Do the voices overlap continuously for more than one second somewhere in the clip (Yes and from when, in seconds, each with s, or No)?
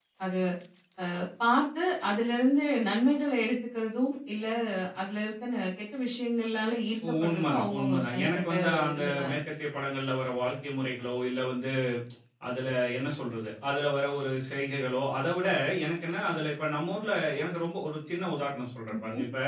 Yes, from 7.2 s